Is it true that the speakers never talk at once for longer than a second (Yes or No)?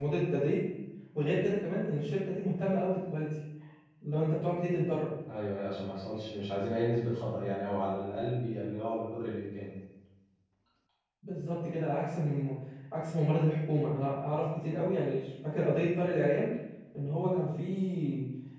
Yes